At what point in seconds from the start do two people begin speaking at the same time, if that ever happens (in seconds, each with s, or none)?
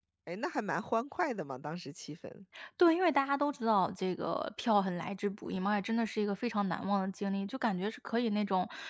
none